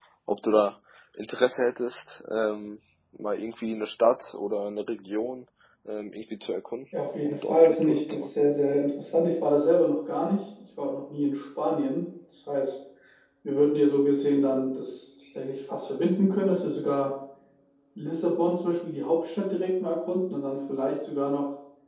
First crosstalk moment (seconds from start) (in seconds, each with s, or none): 6.9 s